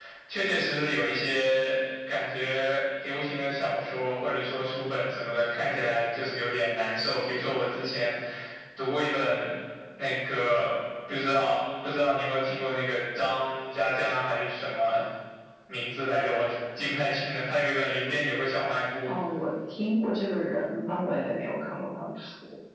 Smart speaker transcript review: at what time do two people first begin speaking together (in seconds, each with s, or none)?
none